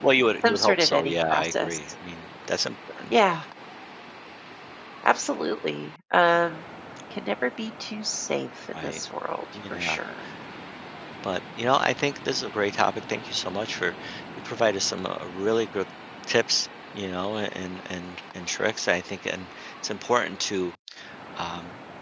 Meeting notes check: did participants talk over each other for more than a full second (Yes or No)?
Yes